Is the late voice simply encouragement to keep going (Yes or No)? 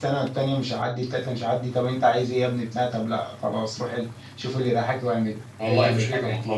No